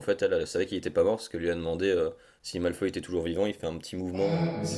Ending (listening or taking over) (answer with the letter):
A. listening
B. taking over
B